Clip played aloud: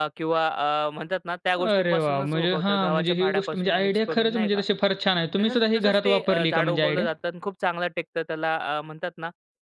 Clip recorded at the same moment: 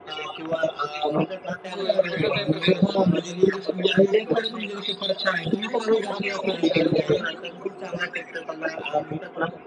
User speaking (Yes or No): Yes